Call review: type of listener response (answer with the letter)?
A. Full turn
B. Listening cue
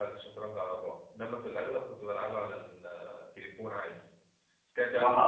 A